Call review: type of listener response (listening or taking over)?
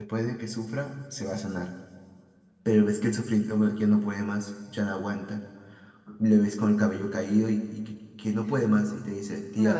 taking over